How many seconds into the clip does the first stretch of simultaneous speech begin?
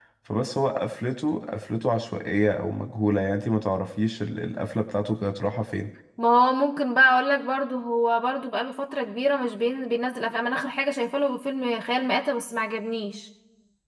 none

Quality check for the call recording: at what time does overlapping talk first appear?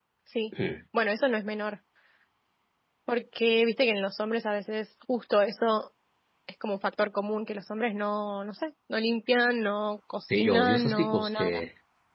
10.3 s

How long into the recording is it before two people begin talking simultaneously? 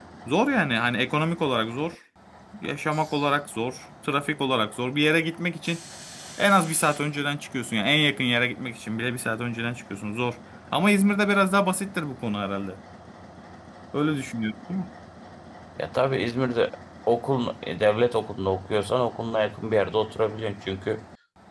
none

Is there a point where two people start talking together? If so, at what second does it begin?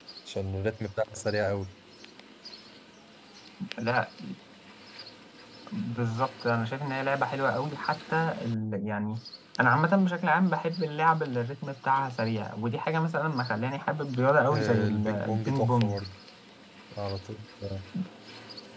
14.5 s

